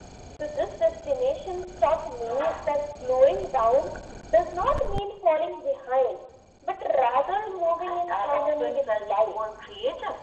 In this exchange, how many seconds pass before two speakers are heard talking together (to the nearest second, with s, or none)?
7 s